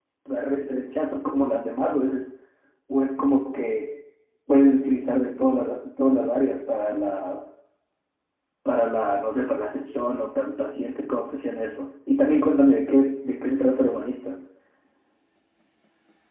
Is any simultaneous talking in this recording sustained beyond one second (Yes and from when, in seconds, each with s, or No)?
No